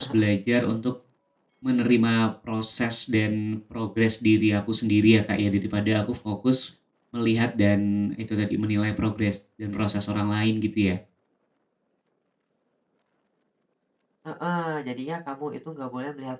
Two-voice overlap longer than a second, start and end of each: none

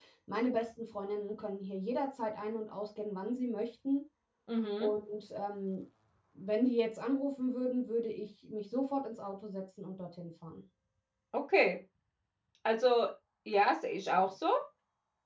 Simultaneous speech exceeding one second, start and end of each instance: none

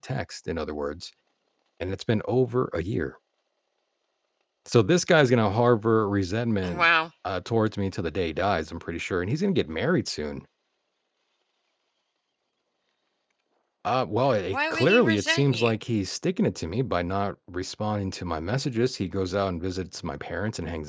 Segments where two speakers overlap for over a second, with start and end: 14.5-15.7

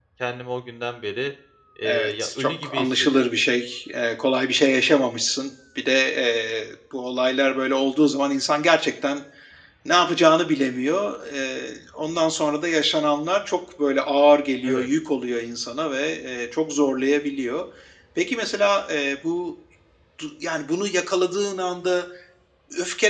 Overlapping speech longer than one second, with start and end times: 1.8-3.3

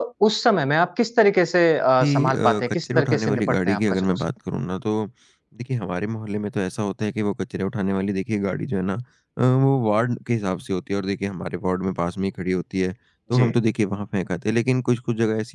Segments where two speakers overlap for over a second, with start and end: 2.0-4.3

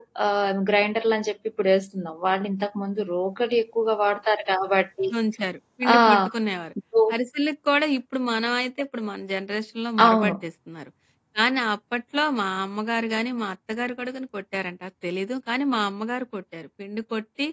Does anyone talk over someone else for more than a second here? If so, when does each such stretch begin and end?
none

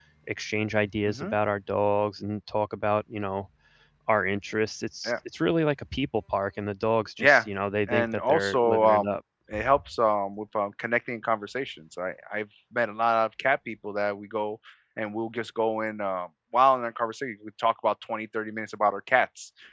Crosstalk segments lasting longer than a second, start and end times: 7.9-9.2

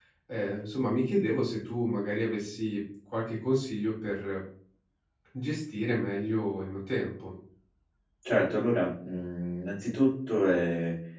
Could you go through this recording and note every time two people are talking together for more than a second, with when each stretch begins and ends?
none

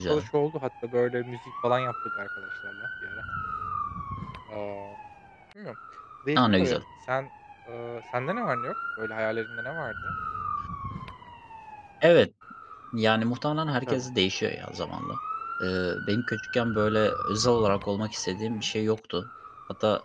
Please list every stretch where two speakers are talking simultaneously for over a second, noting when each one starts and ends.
none

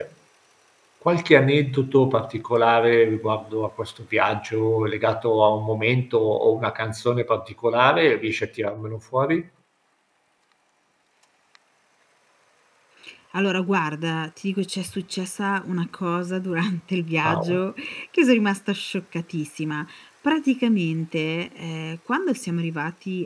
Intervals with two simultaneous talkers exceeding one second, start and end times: none

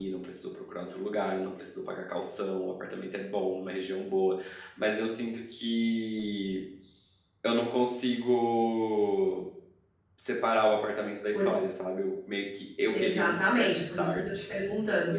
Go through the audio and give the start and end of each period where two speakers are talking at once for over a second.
12.9-14.2

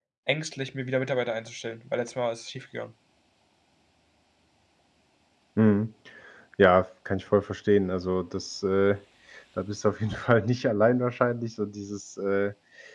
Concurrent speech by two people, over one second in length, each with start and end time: none

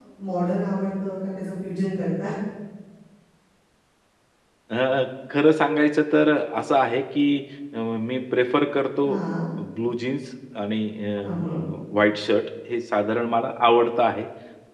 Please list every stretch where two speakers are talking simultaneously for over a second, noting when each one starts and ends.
none

